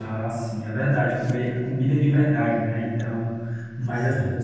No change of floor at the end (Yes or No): Yes